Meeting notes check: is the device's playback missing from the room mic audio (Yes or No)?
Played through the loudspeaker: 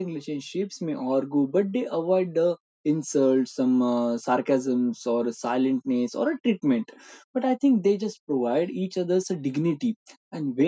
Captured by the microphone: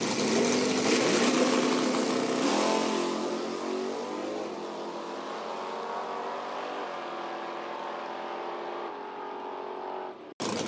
Yes